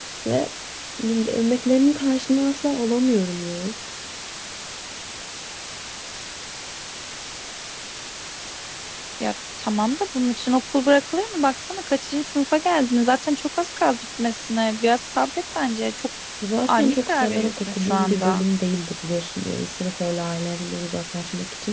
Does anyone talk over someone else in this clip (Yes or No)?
Yes